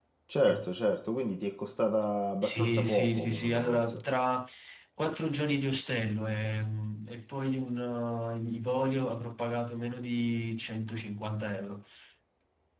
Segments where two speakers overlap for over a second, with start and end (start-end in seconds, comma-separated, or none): 2.4-4.0